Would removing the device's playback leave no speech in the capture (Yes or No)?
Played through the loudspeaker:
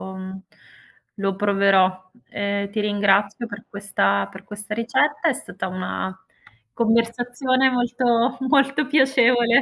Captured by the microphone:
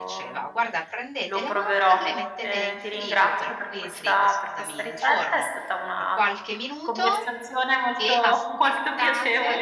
No